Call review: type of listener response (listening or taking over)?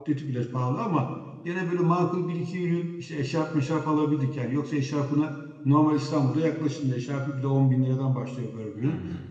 listening